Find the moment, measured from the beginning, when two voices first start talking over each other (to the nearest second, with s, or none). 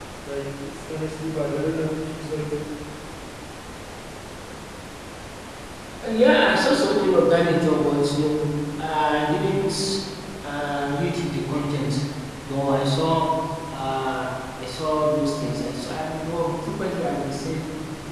none